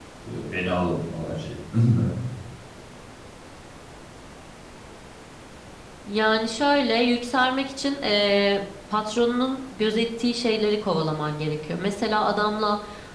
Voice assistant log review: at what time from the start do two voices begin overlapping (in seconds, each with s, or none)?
none